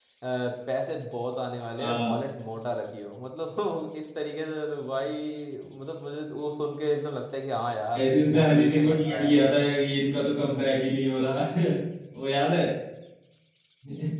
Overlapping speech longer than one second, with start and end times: 8.0-9.3

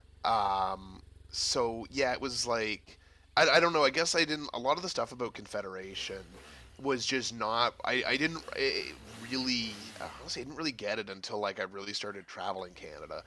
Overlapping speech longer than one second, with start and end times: none

